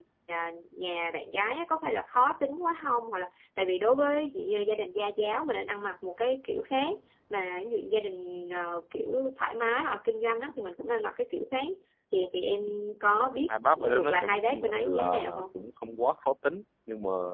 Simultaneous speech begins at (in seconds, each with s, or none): 13.5 s